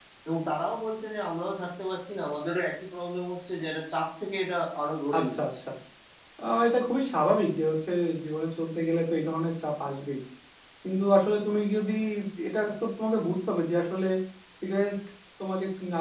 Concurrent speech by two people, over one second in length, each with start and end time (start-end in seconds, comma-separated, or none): none